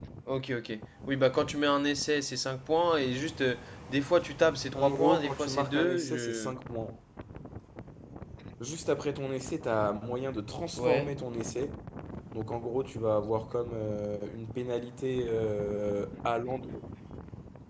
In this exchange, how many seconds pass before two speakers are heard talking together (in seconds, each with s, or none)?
4.7 s